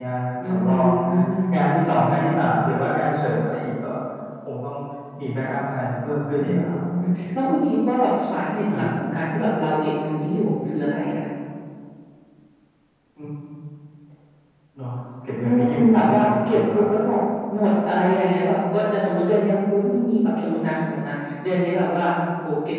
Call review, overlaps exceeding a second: present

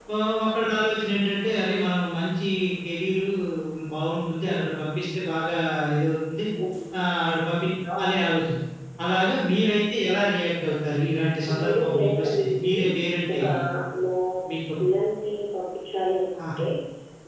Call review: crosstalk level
present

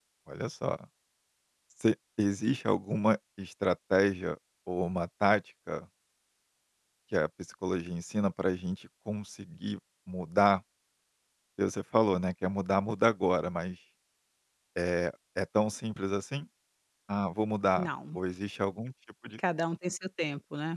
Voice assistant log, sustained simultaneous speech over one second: none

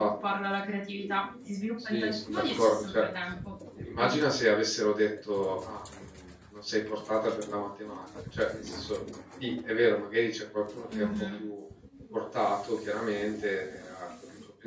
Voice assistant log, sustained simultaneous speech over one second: present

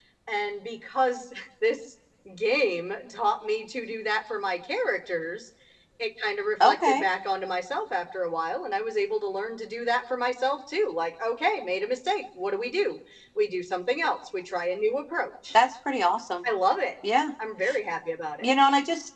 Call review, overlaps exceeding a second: none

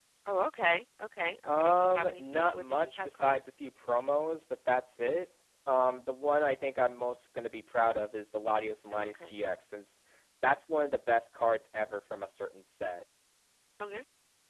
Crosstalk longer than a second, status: present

